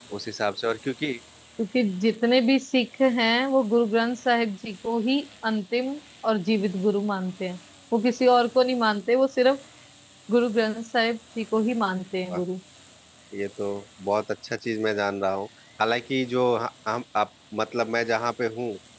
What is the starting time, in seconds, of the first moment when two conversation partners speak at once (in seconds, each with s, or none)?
none